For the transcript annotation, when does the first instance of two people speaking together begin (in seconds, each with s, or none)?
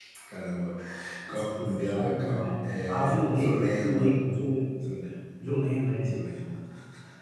1.3 s